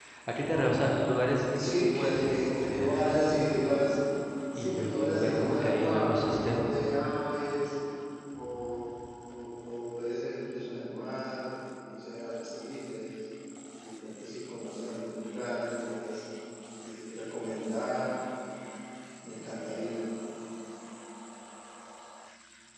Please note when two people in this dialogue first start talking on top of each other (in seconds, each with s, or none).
1.6 s